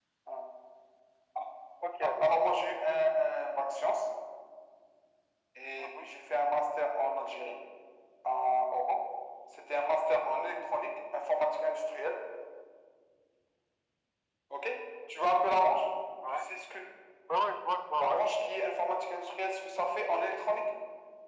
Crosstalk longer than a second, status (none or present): none